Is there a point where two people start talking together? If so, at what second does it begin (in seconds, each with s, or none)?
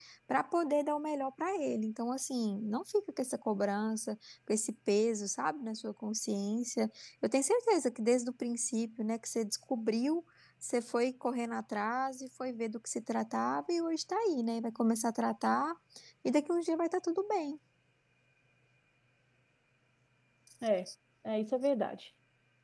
none